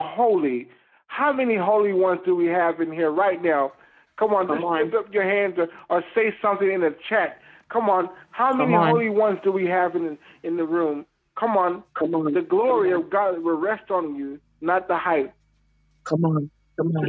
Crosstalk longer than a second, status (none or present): none